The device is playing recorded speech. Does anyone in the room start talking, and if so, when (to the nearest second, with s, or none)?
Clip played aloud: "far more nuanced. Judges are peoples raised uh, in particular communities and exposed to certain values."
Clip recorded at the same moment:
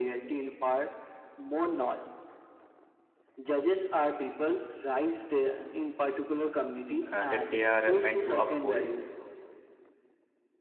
7 s